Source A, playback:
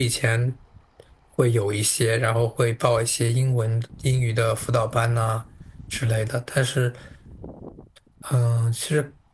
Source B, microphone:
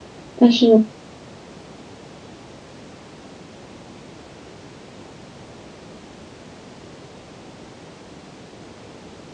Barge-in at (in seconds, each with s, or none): 0.3 s